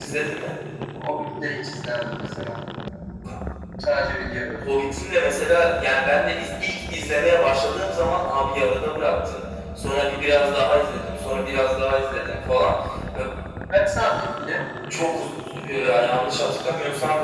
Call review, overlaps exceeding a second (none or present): none